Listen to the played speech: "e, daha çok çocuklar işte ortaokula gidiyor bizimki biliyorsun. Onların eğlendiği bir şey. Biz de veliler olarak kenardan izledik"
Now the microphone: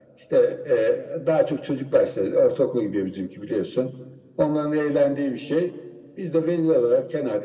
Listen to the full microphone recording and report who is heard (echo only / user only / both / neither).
echo only